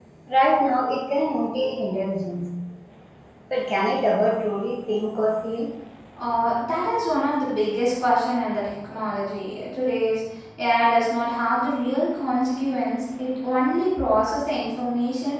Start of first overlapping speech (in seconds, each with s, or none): none